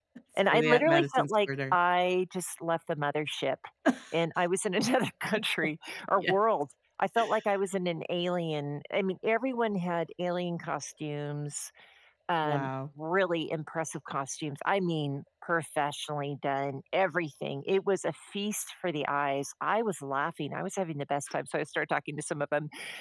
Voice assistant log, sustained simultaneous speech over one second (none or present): present